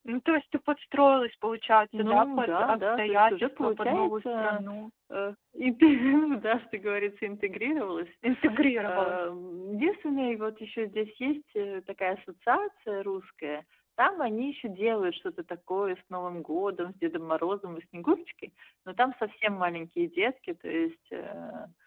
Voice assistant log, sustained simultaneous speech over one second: present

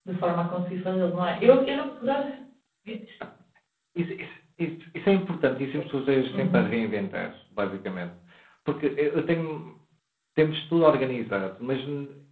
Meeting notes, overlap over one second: none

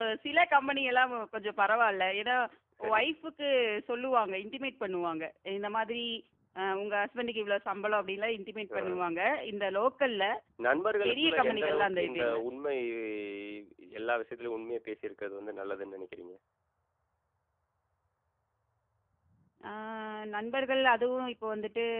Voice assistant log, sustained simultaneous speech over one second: present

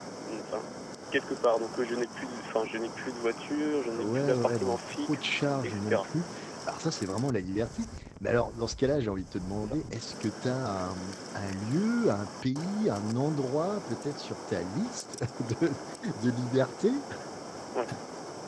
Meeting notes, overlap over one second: present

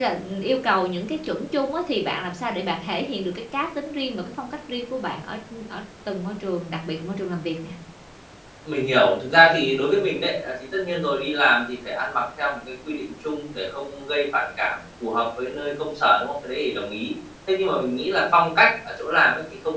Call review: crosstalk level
none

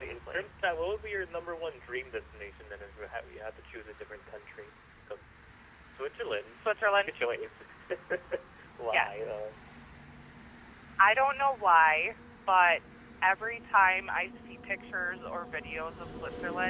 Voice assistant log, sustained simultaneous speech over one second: none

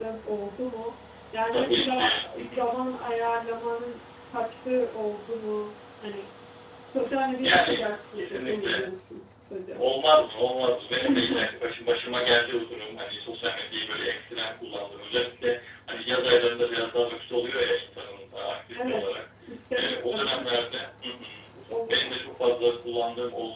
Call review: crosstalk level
present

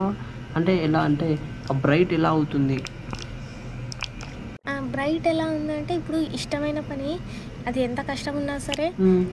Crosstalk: none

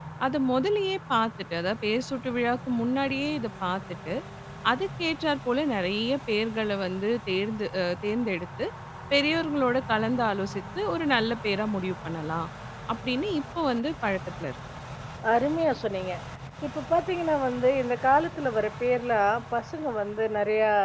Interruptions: none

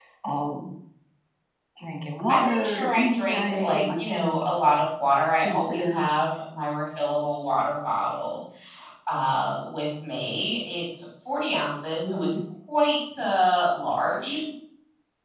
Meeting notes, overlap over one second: present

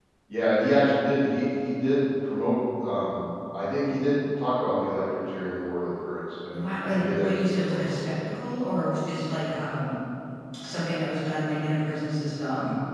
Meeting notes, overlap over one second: present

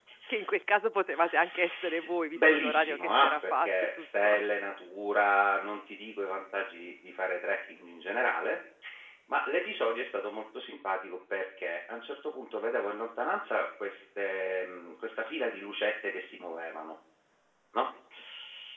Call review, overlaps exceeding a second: present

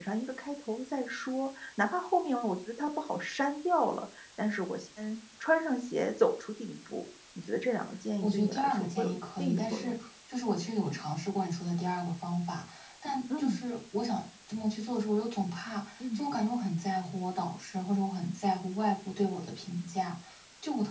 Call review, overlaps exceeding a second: present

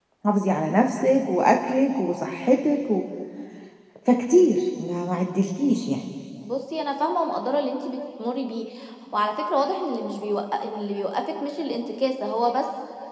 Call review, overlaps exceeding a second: none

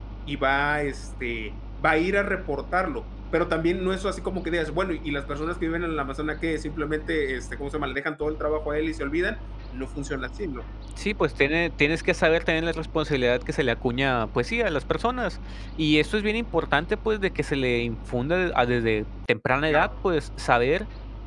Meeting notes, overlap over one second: none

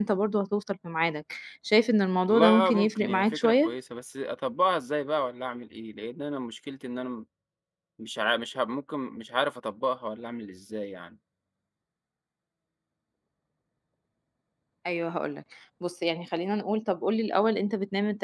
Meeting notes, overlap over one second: present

